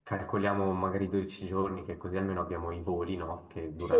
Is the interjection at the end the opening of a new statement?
No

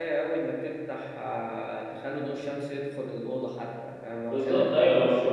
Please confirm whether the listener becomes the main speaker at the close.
Yes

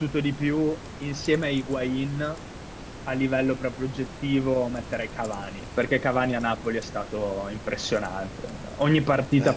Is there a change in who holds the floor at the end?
No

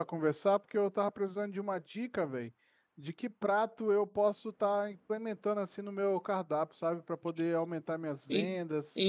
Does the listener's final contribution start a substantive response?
Yes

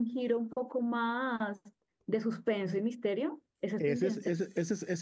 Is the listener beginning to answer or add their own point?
Yes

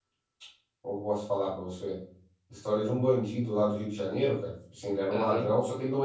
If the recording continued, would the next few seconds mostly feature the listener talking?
No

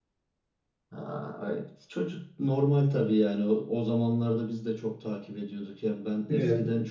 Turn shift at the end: No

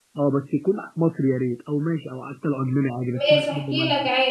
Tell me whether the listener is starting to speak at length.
Yes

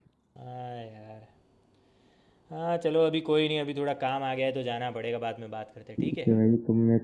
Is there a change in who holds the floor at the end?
Yes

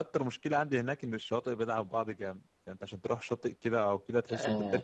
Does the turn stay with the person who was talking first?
No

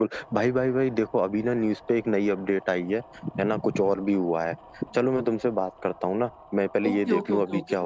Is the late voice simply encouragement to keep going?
No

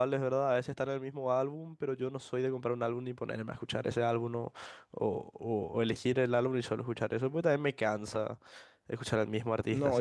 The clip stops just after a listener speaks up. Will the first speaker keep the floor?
No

